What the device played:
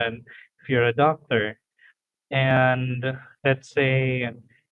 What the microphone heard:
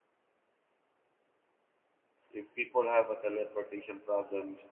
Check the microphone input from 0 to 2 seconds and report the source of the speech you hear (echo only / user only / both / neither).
neither